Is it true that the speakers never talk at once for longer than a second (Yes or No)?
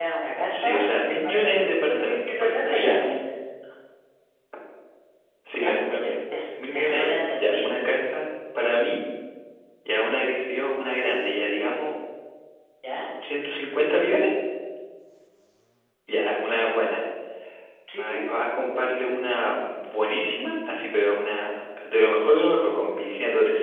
No